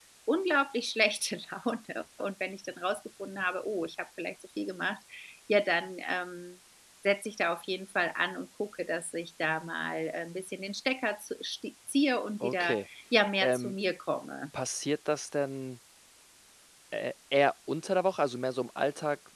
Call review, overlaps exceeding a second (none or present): none